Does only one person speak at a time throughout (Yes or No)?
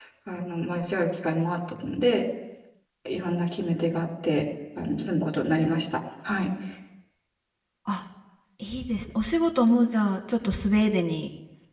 Yes